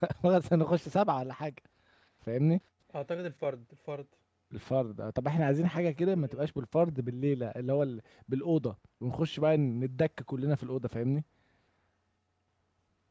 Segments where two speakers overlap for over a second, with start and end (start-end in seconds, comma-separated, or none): none